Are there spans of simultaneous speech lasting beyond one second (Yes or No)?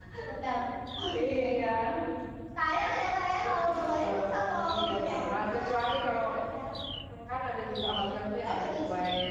Yes